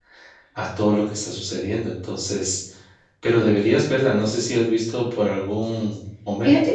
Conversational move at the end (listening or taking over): taking over